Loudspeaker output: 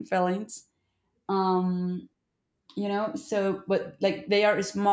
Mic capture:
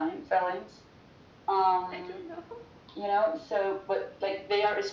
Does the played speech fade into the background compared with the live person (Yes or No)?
No